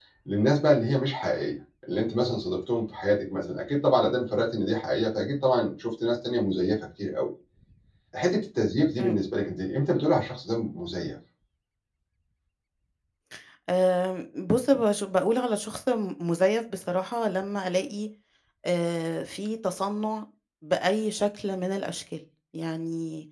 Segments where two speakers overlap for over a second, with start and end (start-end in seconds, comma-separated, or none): none